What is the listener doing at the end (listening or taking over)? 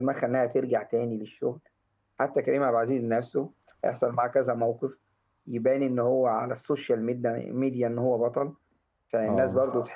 listening